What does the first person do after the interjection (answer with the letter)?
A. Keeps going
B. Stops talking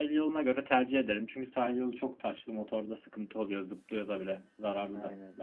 B